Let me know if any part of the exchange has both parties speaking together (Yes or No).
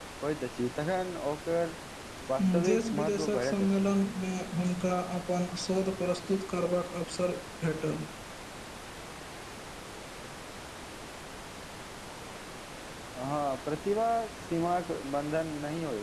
Yes